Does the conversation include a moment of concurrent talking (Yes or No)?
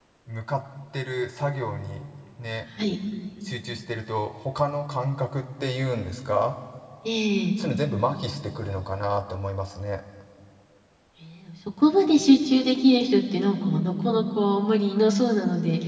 No